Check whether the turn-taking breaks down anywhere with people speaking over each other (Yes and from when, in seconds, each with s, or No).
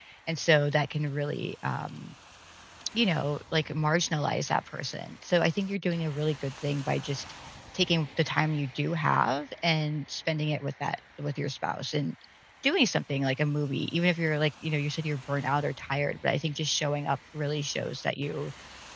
No